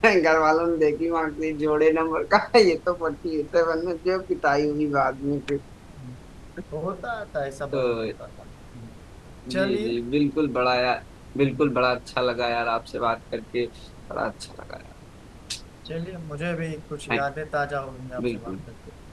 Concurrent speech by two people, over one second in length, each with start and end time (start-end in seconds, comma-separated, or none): none